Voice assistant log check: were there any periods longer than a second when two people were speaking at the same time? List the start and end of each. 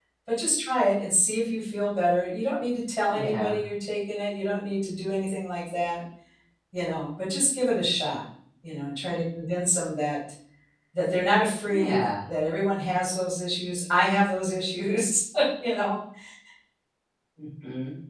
none

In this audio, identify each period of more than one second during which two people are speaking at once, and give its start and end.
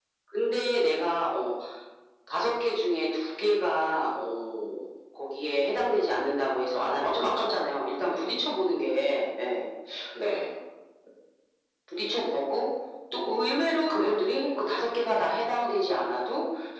6.7-8.5

